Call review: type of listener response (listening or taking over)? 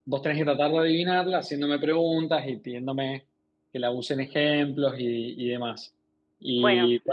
listening